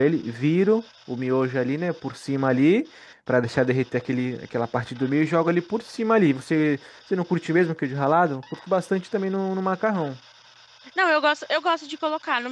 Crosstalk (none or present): none